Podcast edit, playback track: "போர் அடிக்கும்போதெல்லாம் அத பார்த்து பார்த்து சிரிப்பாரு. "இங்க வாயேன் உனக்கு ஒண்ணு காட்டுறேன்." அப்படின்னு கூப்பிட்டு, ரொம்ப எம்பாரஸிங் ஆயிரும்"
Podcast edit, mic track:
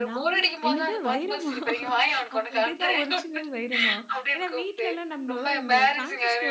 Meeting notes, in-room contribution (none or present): present